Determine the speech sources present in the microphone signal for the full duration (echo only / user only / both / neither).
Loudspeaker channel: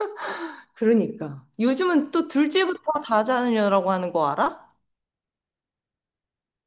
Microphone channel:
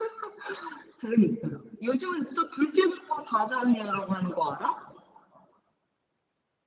echo only